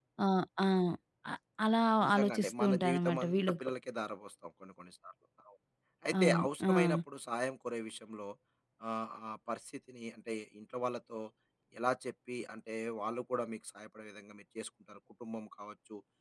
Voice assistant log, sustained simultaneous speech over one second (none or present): present